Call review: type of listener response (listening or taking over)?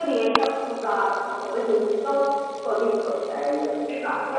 taking over